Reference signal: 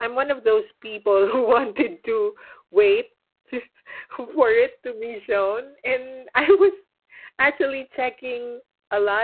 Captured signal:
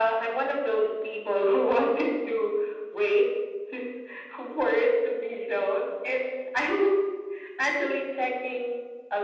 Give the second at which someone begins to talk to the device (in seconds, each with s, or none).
none